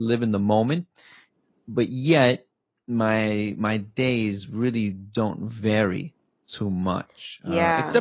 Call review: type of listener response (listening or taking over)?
listening